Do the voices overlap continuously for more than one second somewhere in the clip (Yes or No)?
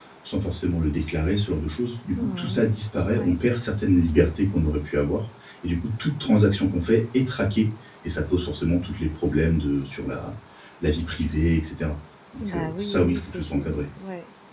Yes